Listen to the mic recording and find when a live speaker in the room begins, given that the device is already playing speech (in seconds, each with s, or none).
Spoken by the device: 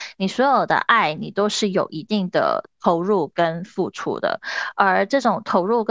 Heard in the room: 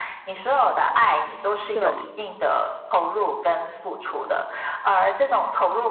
1.7 s